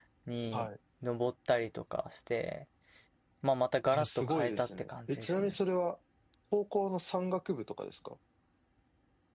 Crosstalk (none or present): present